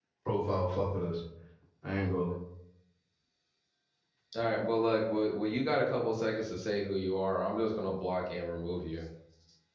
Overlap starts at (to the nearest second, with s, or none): none